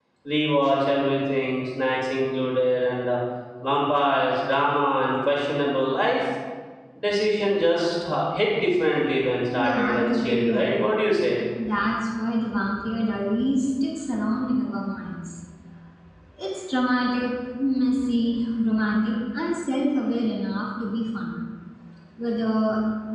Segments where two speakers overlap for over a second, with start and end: 9.5-10.9

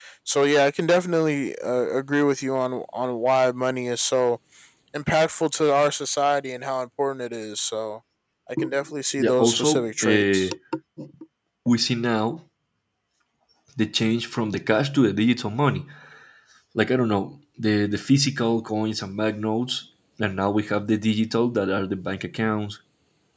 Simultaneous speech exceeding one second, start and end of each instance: 9.2-10.5

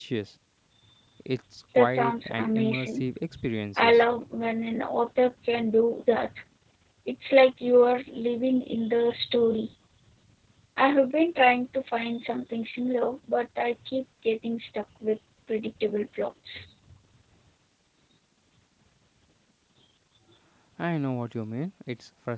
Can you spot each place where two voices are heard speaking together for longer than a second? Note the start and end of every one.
1.8-3.1

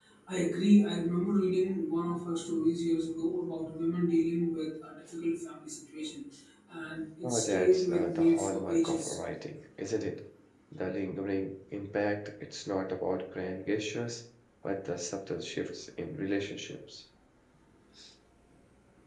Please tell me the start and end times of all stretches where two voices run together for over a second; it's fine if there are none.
7.2-9.2

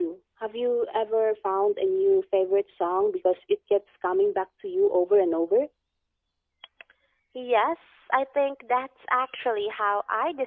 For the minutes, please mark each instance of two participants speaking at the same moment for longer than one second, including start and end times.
none

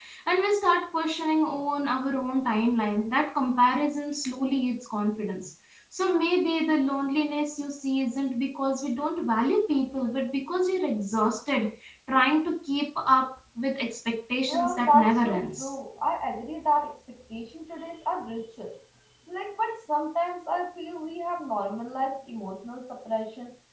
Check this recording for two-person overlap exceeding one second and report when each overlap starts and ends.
14.5-15.7

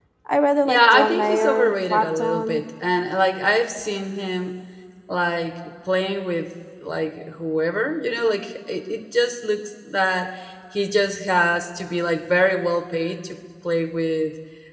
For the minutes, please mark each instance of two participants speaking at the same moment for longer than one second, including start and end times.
0.7-2.7

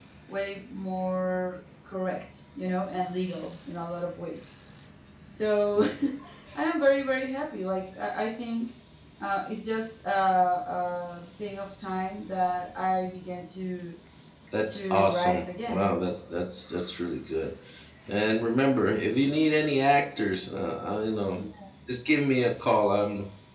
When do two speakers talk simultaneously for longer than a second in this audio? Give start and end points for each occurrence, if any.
14.7-15.9

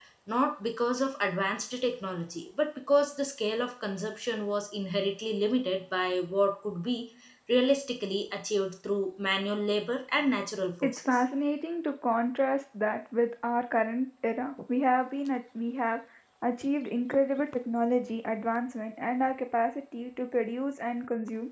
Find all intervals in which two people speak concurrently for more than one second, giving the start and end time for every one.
none

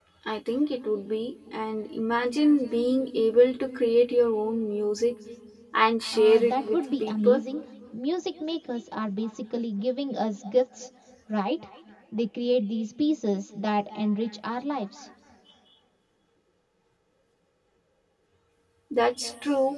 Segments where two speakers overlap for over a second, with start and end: 6.1-7.4

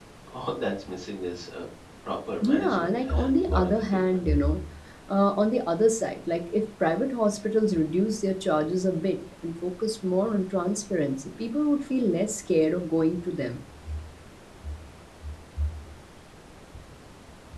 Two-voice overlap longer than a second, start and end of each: 2.4-4.2

